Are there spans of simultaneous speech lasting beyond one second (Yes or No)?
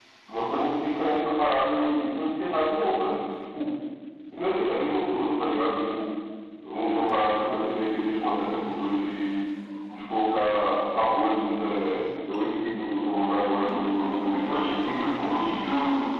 Yes